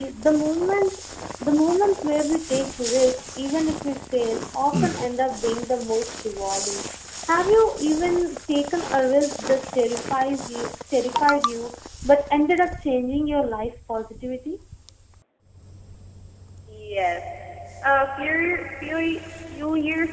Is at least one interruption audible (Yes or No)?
No